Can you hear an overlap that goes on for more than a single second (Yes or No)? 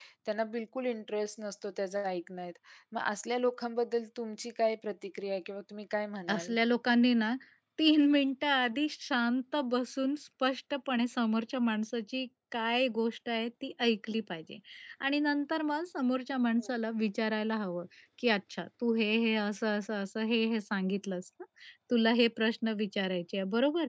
No